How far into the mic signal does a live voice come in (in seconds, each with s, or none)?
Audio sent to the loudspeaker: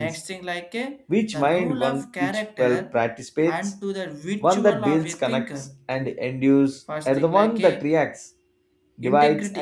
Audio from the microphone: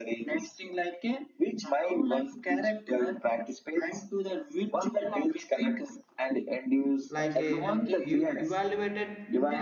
7.1 s